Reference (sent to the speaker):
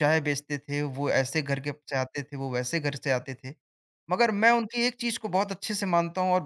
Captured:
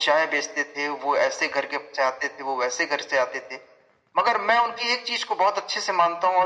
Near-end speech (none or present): none